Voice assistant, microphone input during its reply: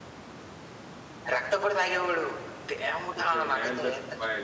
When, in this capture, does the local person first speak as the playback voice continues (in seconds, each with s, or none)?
3.2 s